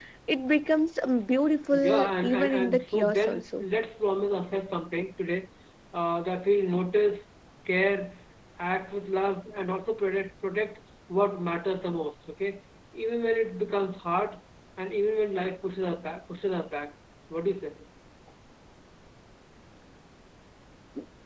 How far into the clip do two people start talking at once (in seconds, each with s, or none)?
1.7 s